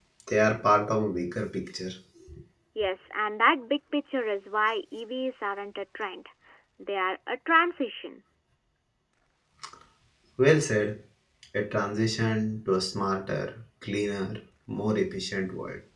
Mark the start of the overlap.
none

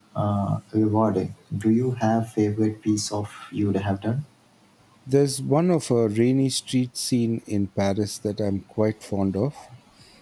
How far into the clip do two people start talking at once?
none

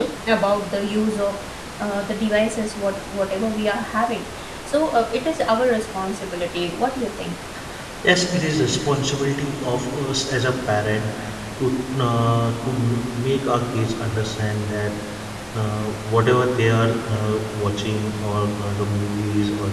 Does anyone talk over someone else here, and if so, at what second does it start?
none

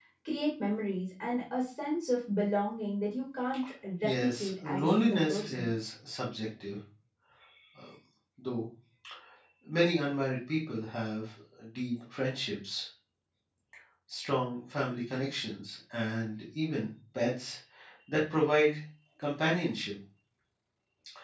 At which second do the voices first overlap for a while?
4.0 s

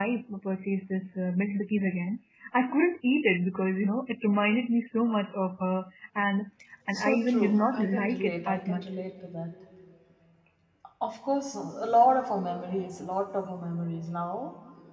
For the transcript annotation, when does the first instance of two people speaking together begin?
6.9 s

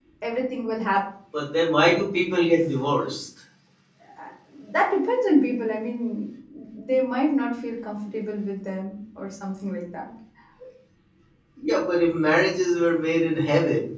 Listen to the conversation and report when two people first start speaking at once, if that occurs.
none

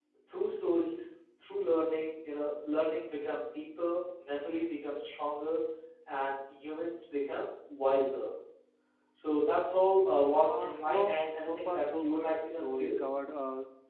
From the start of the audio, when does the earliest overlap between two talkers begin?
10.4 s

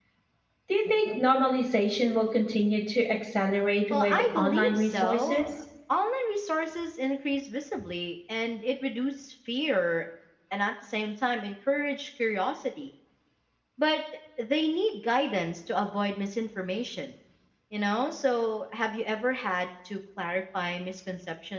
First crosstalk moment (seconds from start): 3.9 s

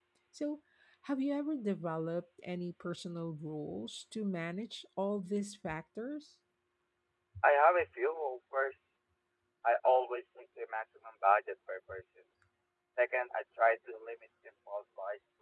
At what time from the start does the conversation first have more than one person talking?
none

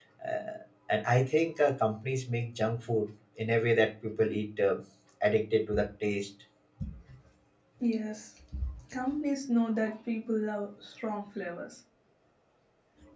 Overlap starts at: none

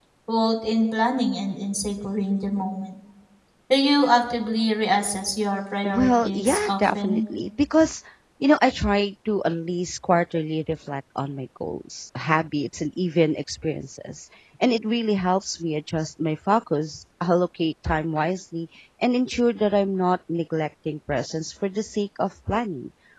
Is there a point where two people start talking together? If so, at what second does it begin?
5.8 s

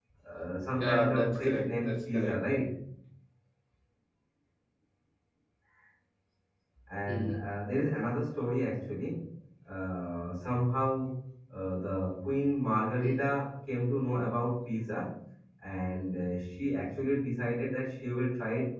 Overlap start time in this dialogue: 0.8 s

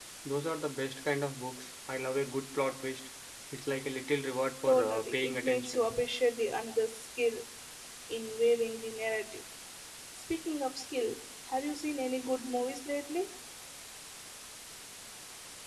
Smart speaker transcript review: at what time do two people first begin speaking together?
4.6 s

